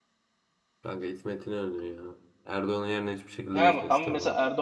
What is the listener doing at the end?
taking over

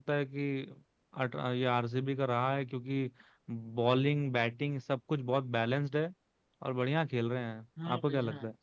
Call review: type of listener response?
taking over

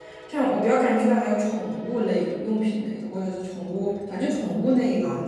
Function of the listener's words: taking over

